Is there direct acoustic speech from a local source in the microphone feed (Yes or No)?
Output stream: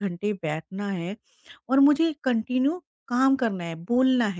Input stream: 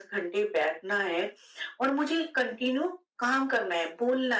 No